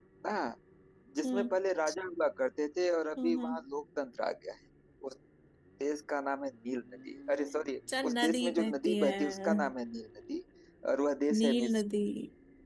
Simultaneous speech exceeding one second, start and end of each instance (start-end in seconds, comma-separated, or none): 8.0-9.5